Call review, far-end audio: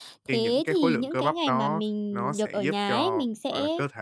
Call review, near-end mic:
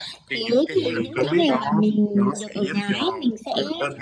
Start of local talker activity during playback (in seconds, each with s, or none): 0.7 s